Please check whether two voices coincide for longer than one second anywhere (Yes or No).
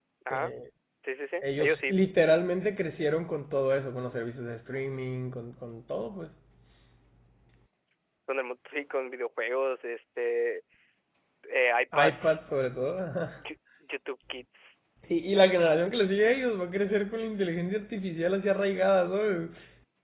No